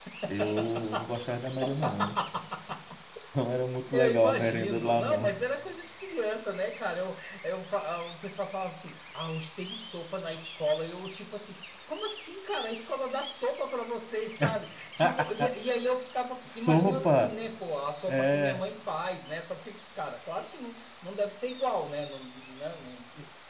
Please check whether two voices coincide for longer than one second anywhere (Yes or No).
Yes